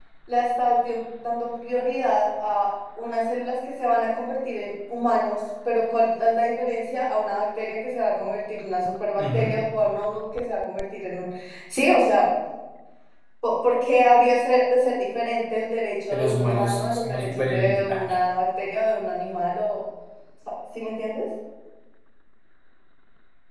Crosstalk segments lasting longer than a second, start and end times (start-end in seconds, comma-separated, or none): 16.1-18.0